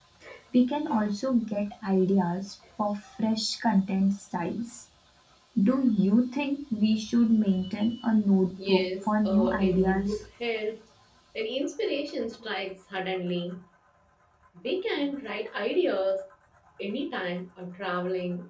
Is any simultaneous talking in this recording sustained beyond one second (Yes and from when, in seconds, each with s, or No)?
Yes, from 8.6 s